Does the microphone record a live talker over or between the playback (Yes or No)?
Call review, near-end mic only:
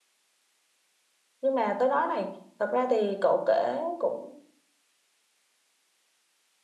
Yes